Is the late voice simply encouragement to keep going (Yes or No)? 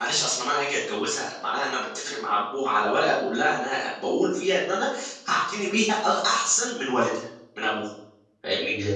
No